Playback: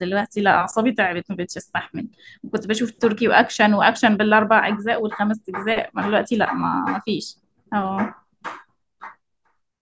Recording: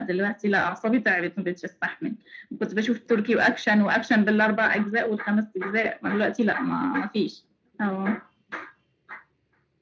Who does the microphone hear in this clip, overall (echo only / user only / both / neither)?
echo only